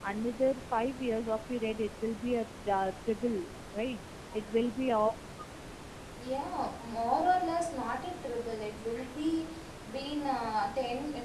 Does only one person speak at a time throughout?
Yes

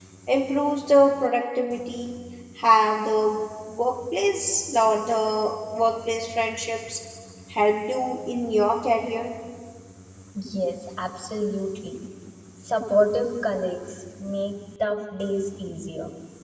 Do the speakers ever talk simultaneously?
No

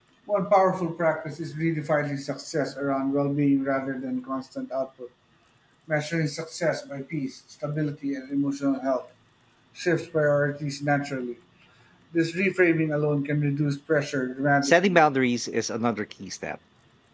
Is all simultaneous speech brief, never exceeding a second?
Yes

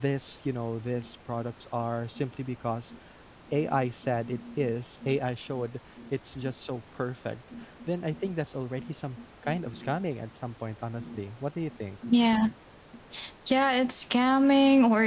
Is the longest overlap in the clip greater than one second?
Yes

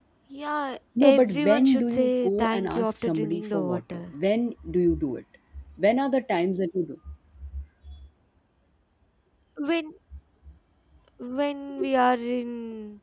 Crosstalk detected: Yes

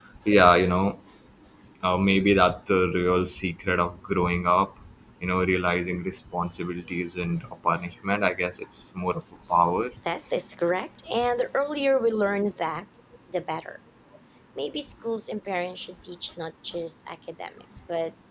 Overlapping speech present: No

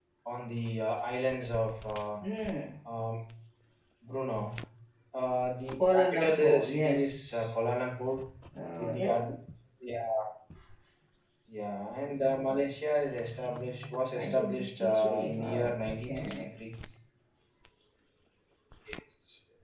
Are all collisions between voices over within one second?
No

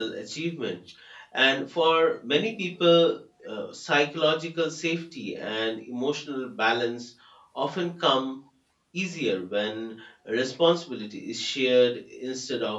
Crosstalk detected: No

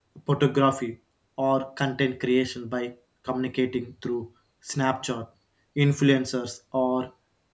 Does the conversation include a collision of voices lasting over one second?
No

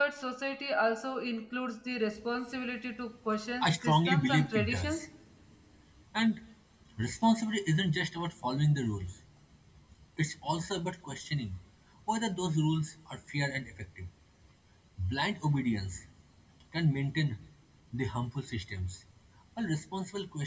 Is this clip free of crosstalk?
No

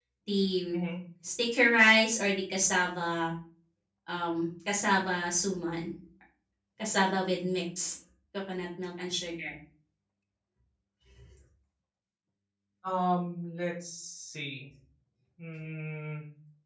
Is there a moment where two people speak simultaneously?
No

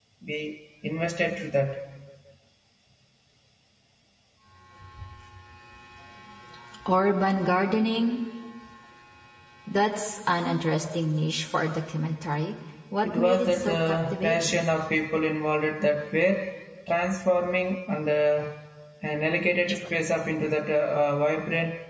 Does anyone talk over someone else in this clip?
Yes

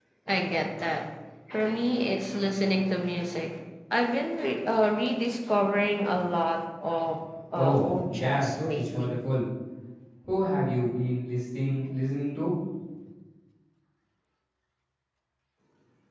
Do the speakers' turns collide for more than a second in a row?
Yes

